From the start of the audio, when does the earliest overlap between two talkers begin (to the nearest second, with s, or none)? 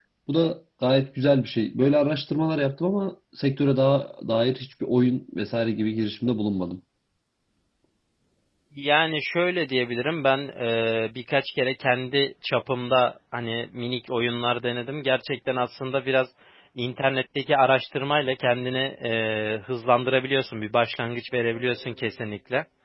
none